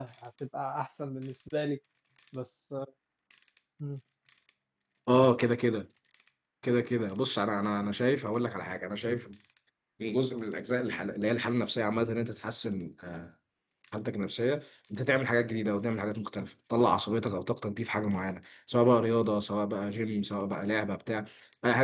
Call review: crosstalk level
none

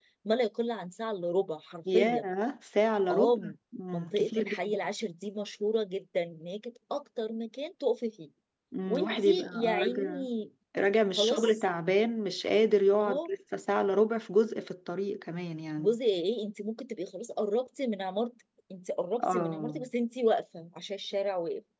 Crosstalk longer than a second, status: present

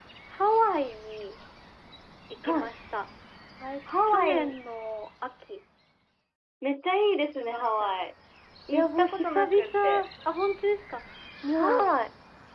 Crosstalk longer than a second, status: present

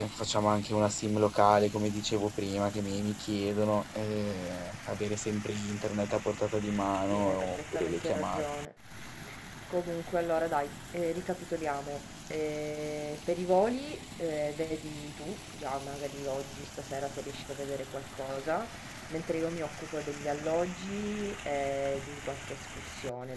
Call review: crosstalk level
present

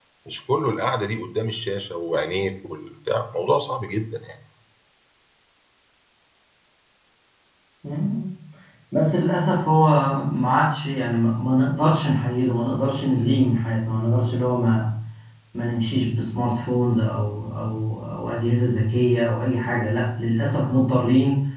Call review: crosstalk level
none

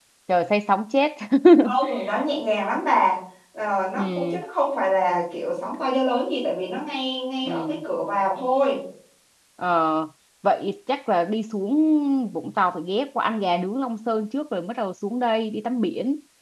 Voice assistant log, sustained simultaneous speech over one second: none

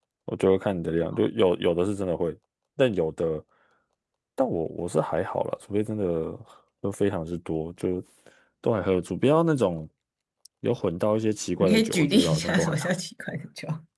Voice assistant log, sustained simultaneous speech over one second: present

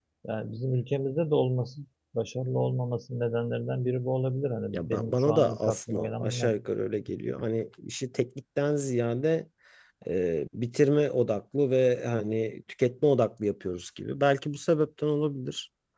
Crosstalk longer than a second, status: present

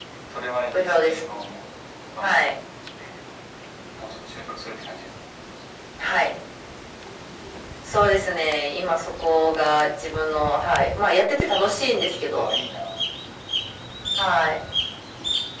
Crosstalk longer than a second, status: none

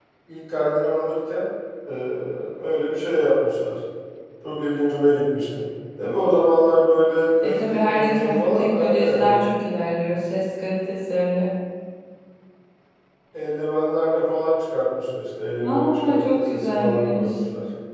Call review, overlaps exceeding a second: present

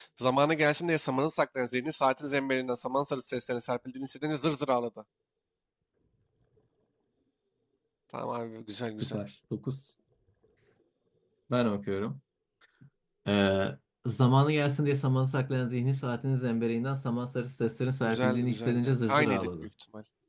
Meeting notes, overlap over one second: present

